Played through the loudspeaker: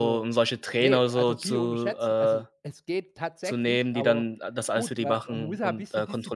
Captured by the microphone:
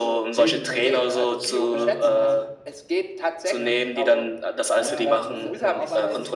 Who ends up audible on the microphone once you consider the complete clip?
both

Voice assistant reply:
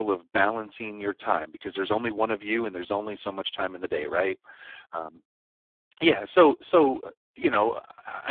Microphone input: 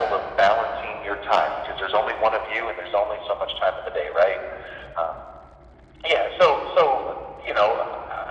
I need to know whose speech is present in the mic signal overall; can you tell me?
echo only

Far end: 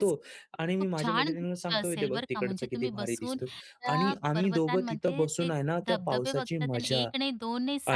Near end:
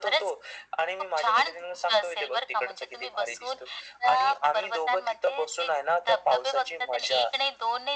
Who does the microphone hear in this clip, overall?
echo only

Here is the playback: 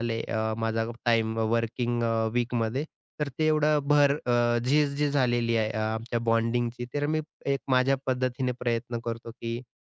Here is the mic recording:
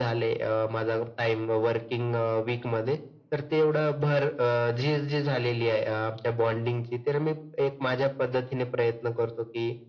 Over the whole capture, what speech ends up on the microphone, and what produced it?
echo only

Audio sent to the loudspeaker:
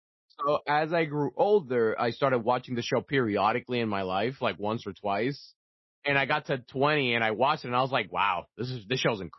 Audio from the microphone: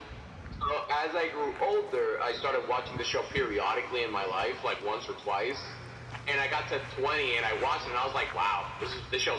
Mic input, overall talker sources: echo only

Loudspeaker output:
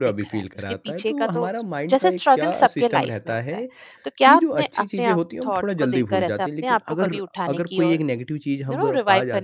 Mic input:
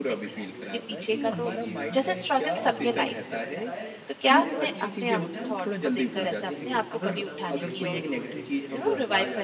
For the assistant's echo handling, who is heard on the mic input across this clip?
both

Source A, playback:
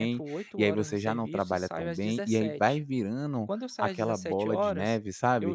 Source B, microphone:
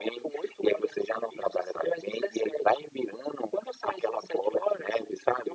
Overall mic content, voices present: echo only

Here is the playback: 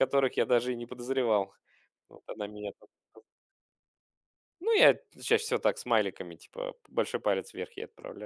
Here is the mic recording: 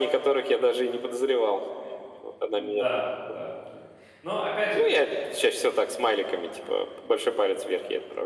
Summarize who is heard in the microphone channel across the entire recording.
both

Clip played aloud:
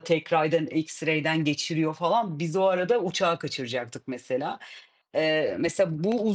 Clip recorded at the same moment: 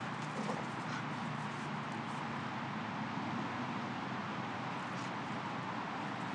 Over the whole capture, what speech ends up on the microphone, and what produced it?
neither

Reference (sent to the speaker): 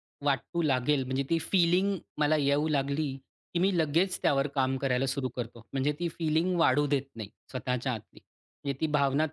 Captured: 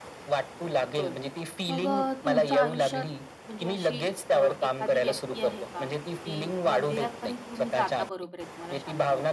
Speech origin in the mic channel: both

